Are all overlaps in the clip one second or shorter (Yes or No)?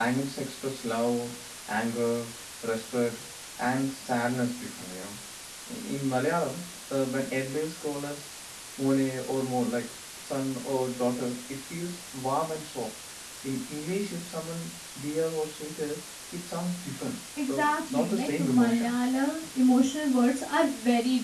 No